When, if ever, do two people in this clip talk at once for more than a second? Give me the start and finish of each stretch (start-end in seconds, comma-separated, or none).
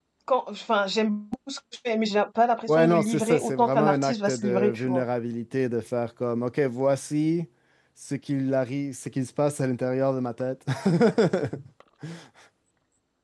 2.7-5.0